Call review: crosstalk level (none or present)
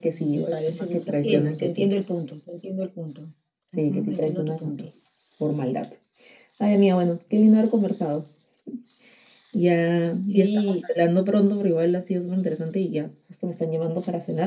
present